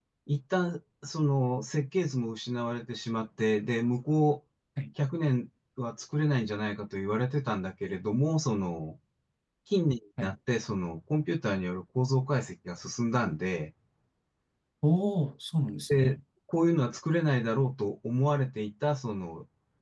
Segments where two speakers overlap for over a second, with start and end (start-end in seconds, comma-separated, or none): none